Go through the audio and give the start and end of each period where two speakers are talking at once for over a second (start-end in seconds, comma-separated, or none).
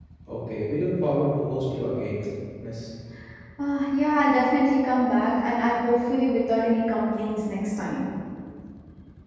none